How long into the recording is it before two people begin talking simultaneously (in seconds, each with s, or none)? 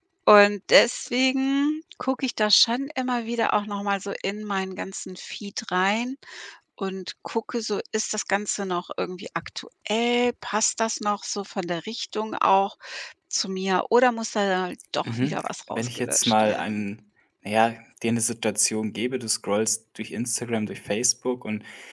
15.1 s